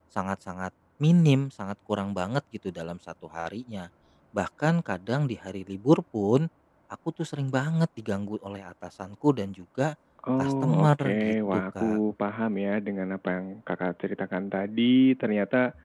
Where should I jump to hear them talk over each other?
10.4 s

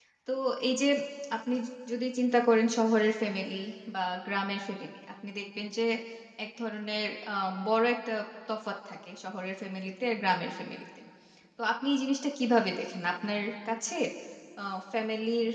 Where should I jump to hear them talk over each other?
none

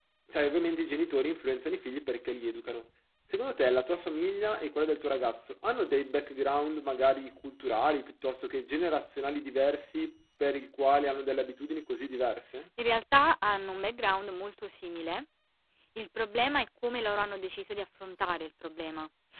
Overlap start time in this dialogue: none

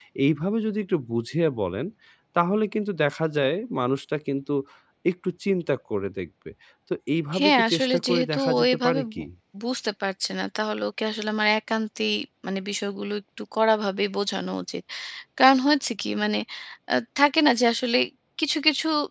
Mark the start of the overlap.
7.4 s

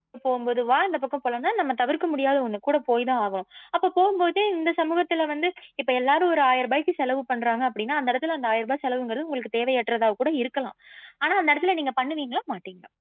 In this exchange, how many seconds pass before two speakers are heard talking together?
none

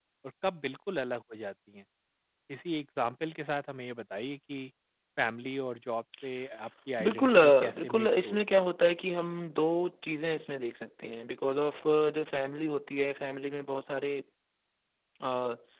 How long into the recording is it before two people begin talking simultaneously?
7.0 s

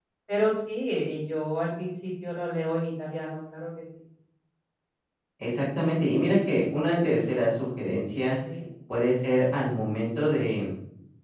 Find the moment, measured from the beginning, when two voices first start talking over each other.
none

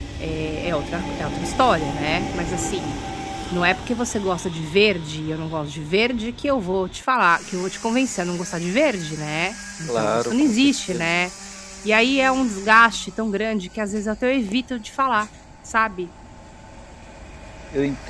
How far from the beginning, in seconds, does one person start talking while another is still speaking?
9.9 s

